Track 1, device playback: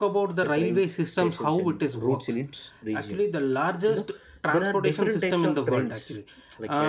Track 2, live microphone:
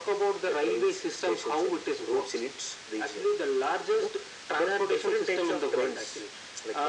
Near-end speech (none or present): none